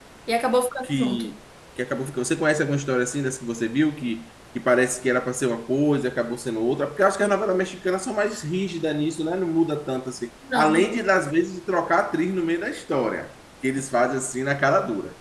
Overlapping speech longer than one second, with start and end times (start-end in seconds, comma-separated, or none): none